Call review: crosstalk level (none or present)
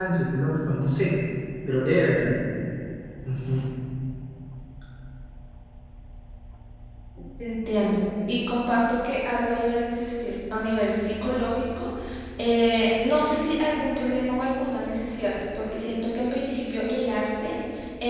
none